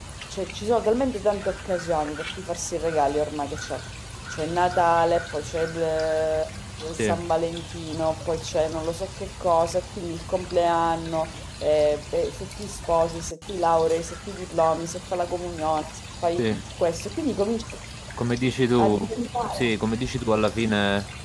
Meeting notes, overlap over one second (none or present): none